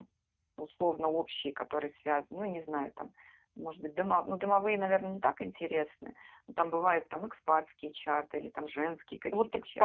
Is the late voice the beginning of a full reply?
Yes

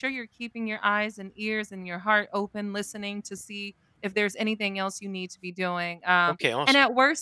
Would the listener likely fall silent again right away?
Yes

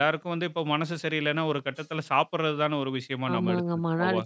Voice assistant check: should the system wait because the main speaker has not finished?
No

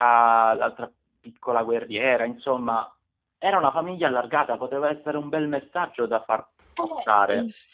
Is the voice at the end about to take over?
Yes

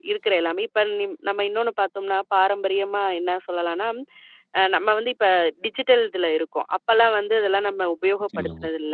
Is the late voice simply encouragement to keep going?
Yes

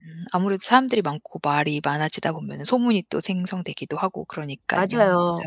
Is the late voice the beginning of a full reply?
Yes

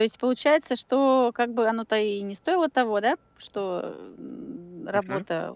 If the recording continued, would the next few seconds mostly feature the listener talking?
No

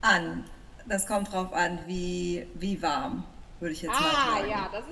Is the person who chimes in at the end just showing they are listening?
No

